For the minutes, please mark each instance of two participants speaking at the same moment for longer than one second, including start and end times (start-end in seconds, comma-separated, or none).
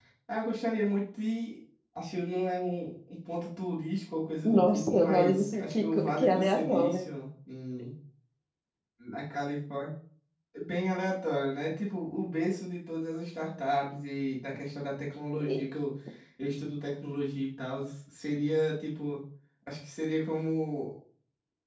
4.4-7.0